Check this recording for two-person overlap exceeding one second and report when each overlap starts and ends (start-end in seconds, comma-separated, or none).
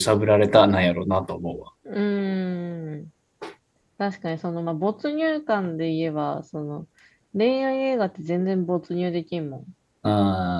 none